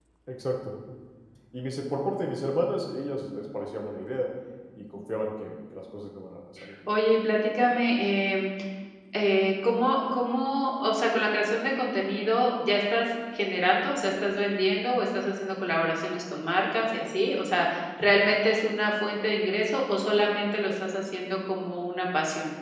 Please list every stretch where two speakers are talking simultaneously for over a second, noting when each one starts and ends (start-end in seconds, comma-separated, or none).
none